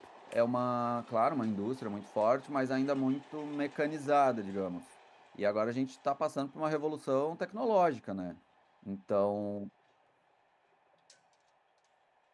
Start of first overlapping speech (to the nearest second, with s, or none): none